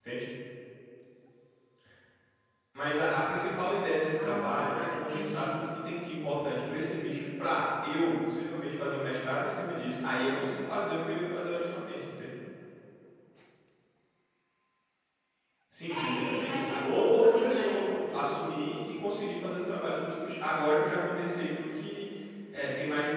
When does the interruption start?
4.2 s

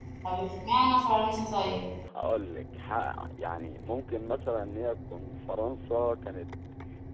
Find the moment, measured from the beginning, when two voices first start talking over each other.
none

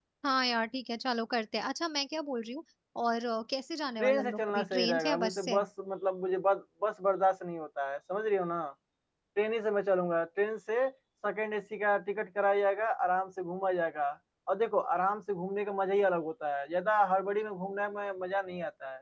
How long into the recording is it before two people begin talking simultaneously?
4.0 s

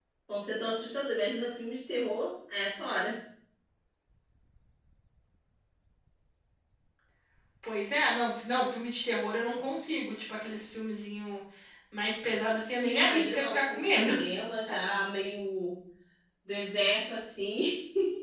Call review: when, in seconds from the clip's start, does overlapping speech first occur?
12.8 s

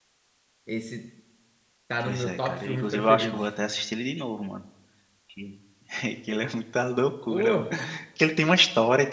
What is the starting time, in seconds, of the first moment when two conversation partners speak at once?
2.0 s

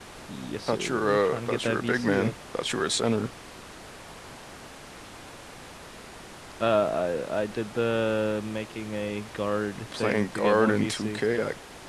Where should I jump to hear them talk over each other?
0.7 s

